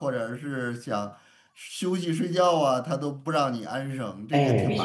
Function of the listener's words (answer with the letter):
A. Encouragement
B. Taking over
B